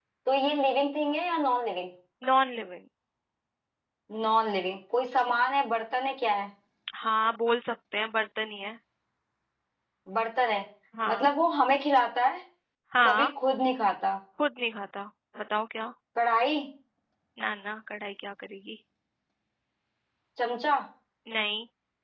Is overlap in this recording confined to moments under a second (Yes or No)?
Yes